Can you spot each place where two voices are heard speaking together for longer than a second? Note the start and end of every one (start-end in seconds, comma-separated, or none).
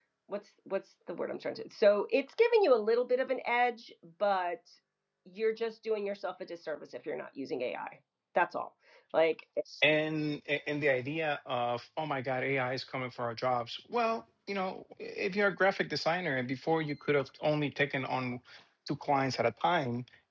none